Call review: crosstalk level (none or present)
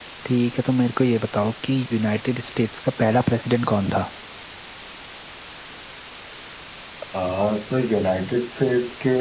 none